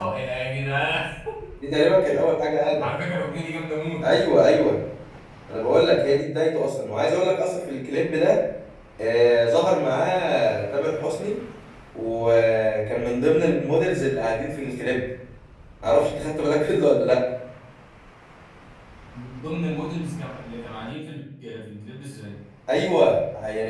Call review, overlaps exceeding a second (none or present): none